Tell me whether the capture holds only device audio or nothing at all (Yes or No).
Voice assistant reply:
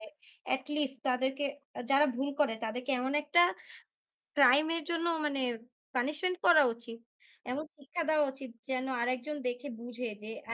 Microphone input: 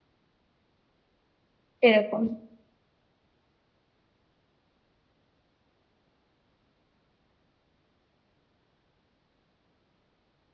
No